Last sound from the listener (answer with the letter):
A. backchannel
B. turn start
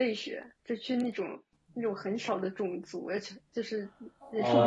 A